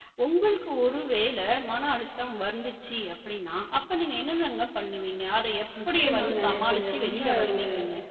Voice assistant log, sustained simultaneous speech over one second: present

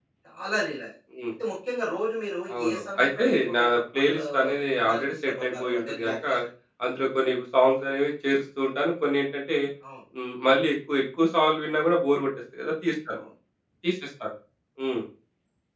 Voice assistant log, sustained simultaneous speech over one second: present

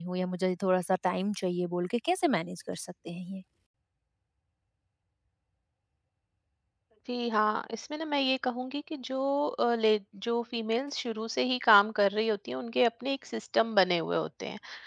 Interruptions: none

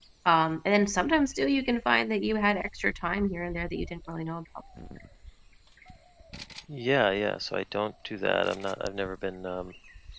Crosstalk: none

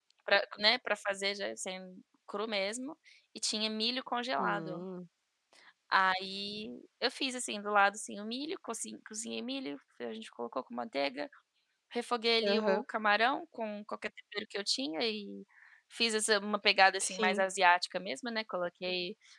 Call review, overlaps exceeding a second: none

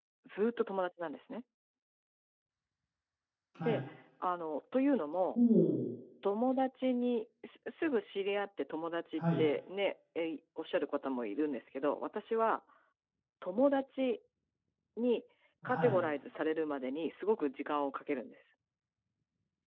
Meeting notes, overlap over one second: none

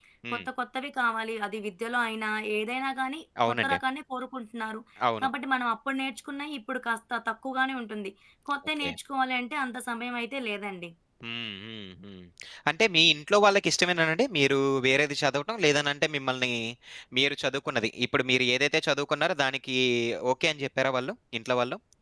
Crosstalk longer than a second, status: none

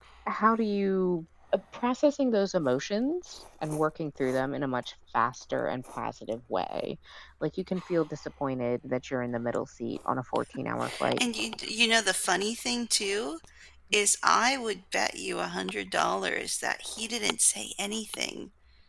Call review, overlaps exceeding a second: none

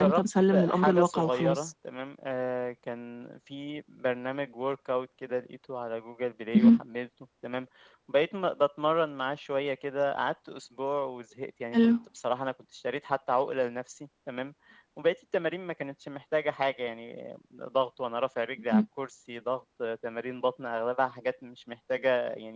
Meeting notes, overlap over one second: present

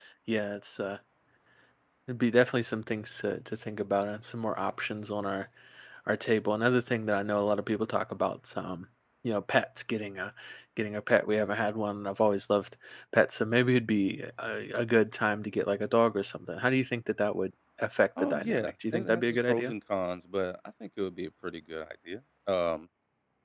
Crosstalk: present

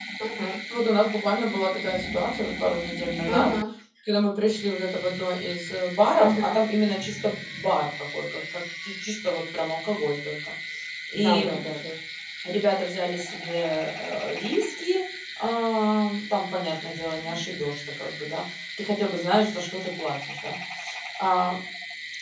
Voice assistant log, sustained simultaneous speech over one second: none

